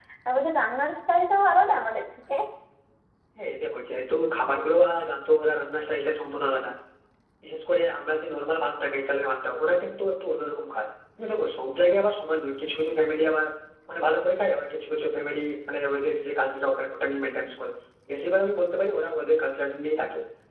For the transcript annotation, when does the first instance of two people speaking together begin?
none

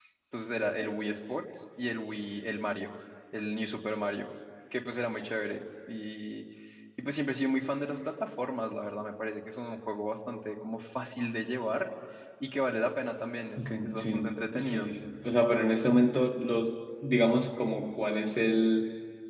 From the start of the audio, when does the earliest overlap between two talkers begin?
13.6 s

